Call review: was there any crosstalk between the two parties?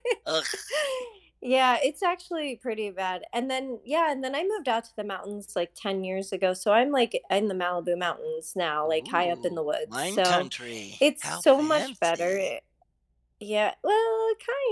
Yes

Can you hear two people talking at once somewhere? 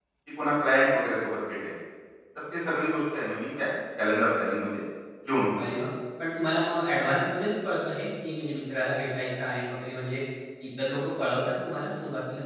No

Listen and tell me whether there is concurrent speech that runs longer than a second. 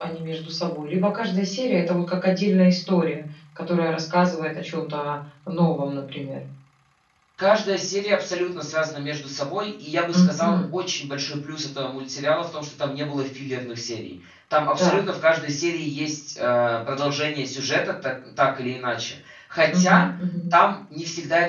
No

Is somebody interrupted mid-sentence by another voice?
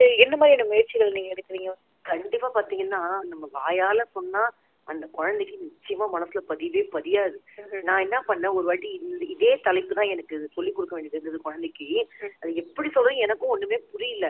No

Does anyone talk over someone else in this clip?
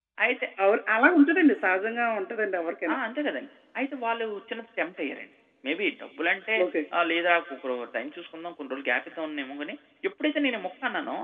No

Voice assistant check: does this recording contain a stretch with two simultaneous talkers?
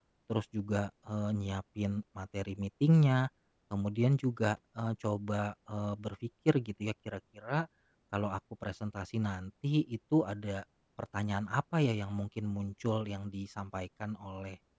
No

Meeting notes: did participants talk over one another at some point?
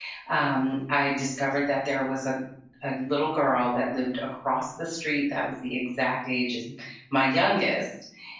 No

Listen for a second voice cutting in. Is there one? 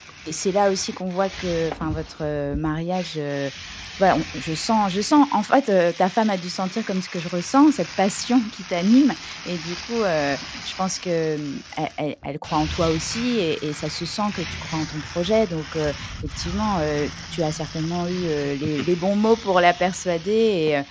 No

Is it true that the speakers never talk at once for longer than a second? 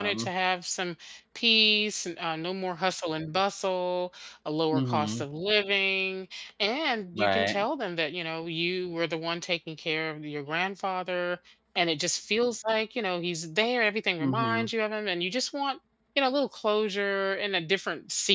Yes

